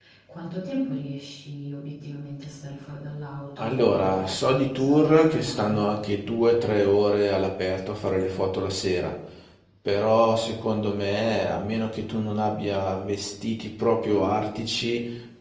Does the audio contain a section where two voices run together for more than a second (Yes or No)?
Yes